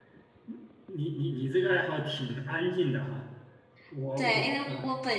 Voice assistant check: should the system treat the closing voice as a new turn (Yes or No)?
Yes